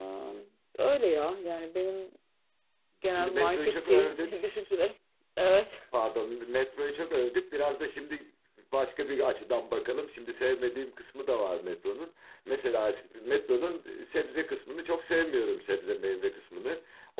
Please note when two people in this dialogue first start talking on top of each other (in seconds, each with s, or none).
3.1 s